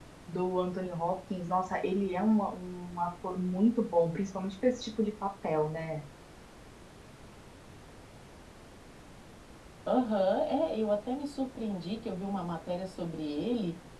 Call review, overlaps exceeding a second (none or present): none